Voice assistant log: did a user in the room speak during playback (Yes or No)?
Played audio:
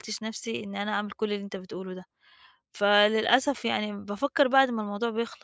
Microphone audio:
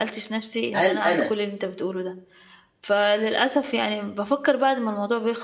Yes